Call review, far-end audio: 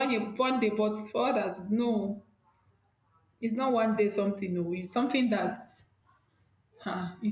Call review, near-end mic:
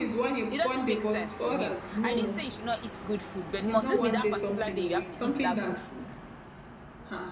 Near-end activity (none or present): present